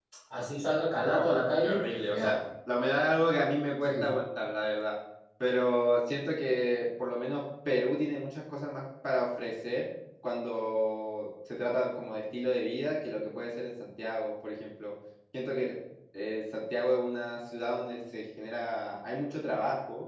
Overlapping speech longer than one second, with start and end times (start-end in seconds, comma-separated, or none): 1.1-2.4